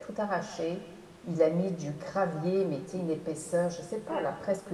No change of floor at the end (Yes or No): Yes